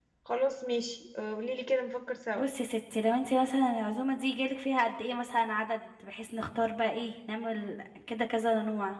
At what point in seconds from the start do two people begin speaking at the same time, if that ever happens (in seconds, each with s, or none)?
none